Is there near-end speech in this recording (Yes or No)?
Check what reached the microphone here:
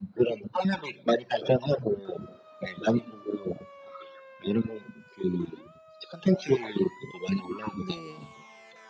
Yes